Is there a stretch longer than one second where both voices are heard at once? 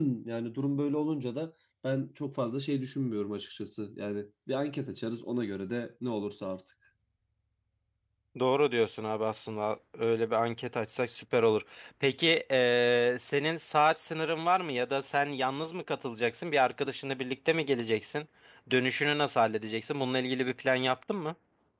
No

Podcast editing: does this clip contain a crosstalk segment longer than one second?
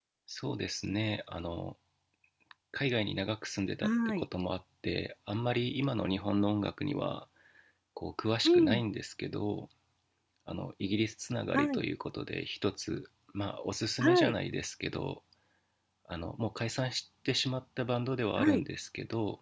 No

